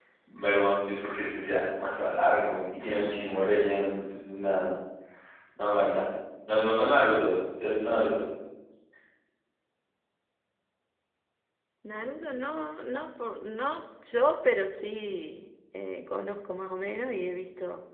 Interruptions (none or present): none